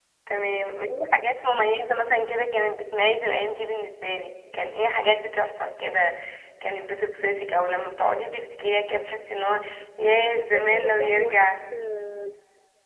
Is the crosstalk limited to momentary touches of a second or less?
No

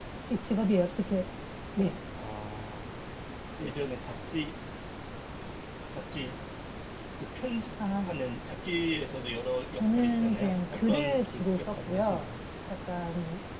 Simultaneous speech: Yes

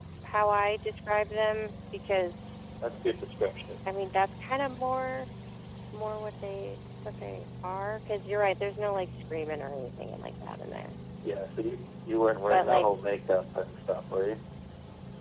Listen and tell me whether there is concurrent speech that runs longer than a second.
No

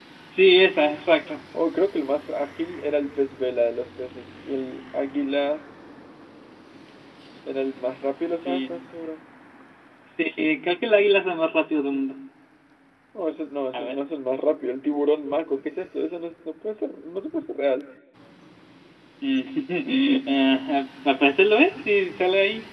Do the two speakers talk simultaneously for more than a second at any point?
No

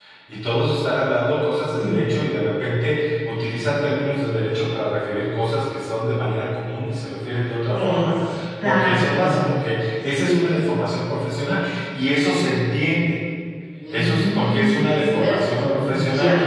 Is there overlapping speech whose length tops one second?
Yes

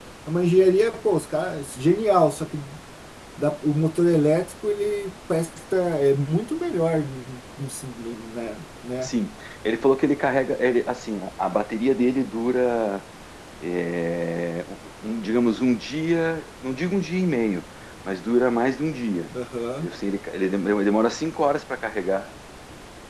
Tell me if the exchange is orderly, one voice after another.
Yes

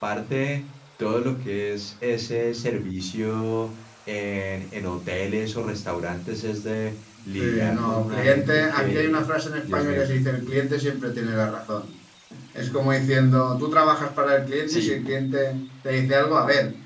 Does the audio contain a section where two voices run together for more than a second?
Yes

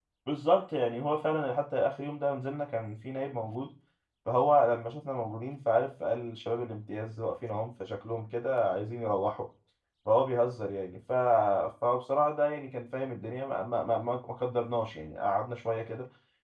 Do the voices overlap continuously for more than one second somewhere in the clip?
No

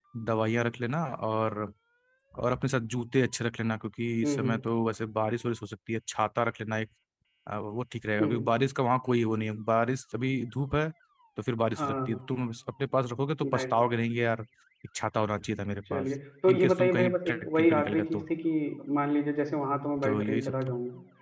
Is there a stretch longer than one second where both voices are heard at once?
Yes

